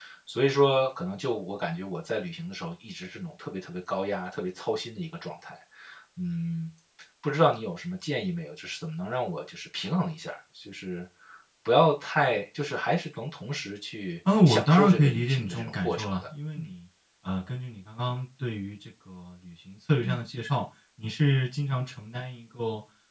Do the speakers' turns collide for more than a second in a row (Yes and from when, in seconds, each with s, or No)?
Yes, from 14.2 s